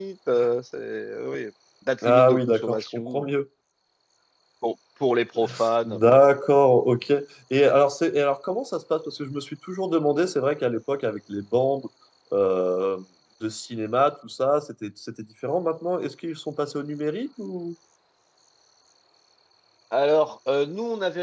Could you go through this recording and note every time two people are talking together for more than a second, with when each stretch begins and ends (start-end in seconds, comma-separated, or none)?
2.0-3.3